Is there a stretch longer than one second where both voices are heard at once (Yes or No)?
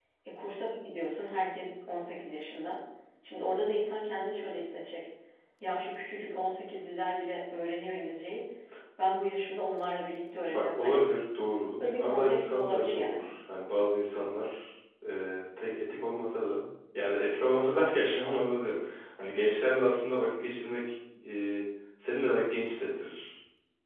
Yes